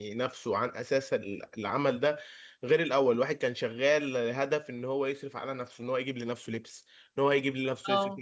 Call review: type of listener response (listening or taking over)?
listening